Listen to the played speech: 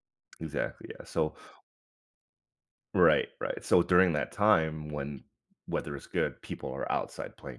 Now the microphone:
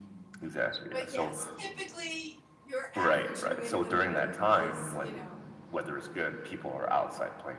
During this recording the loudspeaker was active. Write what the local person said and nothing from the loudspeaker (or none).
but yes, typically, your average New Englander is, you know